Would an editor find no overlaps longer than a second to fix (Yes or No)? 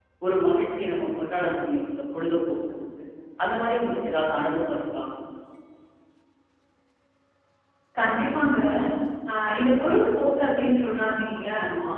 Yes